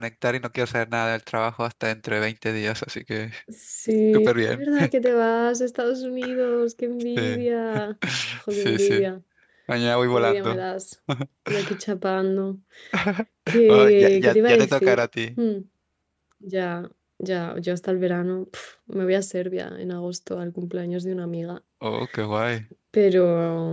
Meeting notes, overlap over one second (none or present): present